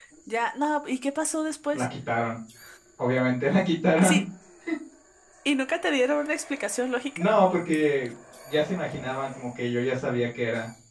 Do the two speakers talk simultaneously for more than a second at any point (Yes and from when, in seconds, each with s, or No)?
No